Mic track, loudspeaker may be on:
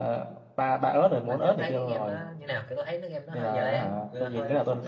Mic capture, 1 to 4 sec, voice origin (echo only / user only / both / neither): both